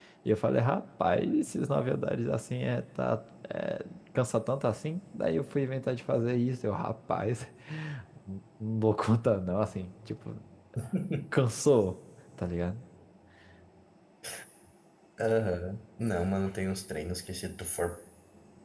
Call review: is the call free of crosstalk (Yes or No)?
Yes